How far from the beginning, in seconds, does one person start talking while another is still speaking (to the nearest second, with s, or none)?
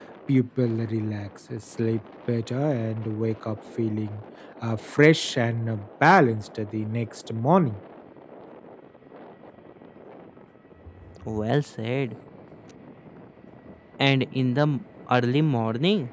none